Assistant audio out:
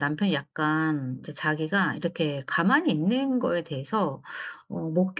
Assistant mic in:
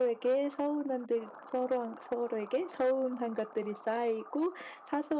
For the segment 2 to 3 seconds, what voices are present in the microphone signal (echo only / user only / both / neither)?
user only